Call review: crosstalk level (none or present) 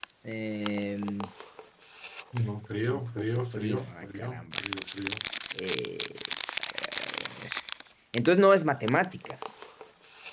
present